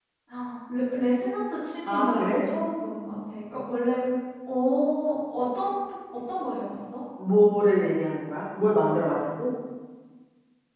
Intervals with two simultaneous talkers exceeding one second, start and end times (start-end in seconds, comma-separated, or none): none